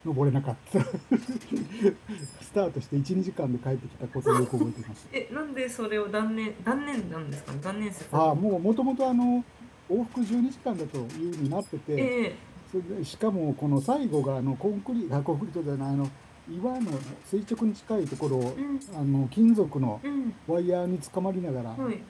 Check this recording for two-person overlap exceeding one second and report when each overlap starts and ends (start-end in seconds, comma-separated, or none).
none